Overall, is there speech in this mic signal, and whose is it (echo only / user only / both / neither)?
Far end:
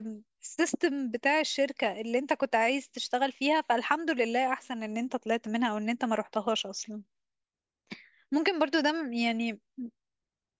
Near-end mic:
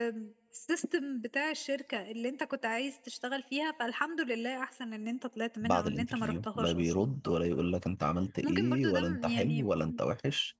both